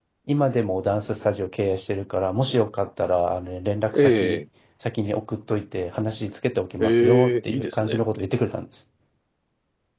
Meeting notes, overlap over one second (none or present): present